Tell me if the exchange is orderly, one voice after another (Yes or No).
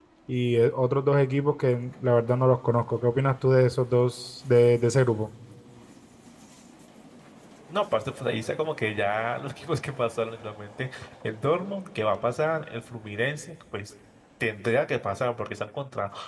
Yes